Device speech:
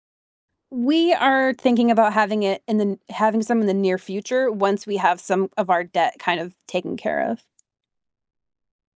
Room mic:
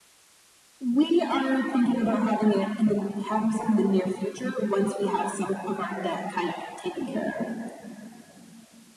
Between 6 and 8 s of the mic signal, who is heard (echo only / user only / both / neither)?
echo only